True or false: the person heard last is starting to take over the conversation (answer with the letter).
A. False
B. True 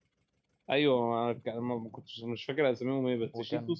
A